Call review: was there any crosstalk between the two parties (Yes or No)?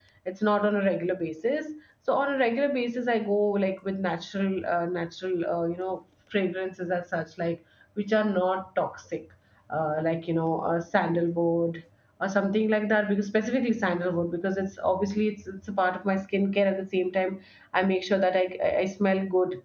No